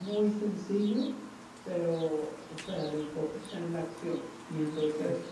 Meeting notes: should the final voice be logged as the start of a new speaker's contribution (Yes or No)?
No